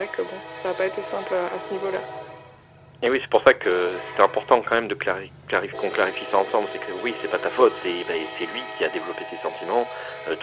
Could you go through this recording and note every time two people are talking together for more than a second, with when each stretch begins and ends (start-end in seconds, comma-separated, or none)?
none